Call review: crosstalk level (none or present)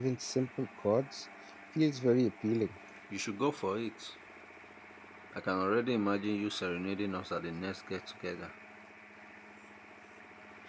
none